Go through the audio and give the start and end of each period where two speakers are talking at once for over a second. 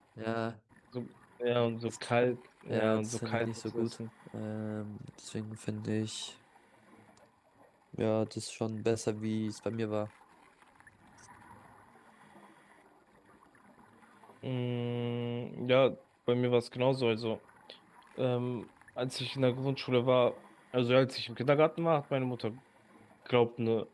2.7-4.0

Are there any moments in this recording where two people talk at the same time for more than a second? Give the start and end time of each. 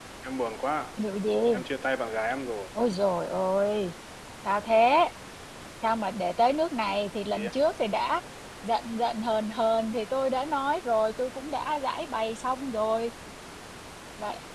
none

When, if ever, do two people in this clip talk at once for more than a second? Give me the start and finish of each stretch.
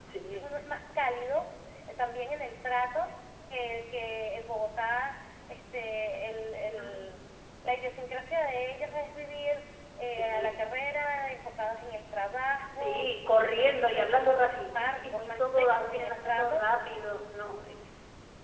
13.5-16.6

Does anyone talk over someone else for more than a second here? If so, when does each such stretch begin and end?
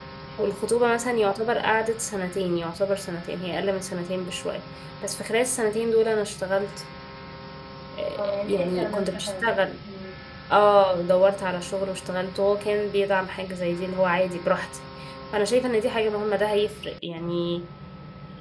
8.2-9.4

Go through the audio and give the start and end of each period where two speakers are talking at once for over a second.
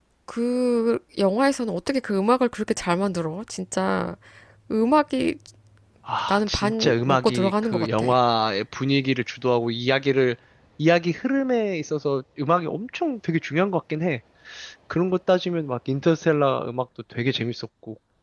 6.3-8.1

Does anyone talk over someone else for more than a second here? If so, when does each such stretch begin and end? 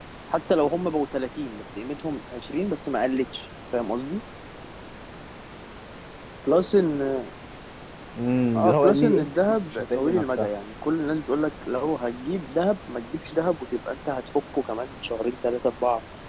8.5-10.5

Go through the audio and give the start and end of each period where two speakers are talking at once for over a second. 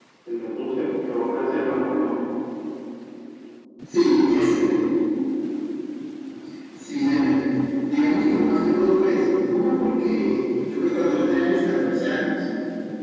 none

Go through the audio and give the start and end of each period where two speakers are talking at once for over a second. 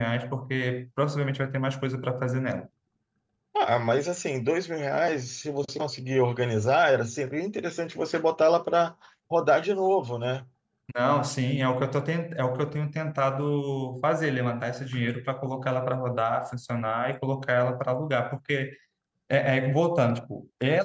none

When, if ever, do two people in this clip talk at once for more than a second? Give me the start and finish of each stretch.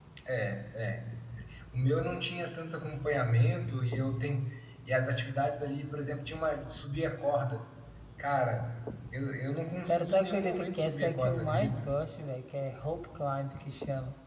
9.9-12.0

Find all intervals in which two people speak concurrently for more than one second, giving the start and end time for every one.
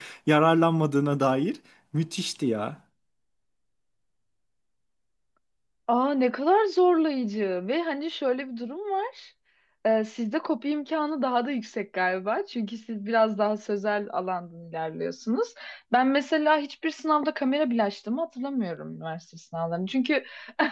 none

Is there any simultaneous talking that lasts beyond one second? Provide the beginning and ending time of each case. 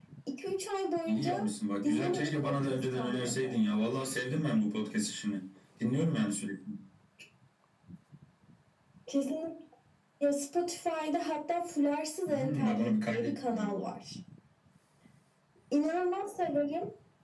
1.8-3.6, 12.3-13.7

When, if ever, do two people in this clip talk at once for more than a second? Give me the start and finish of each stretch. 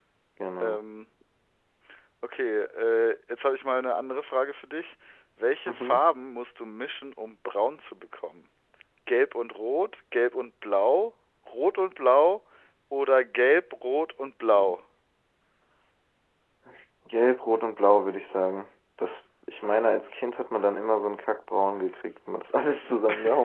none

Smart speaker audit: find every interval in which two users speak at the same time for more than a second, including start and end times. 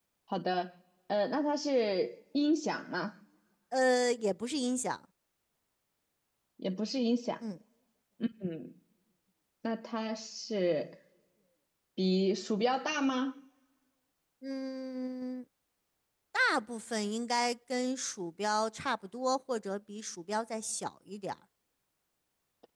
none

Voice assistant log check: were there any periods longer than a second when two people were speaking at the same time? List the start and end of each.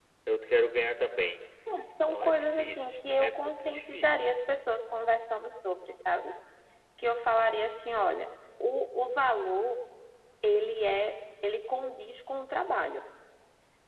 2.1-4.3

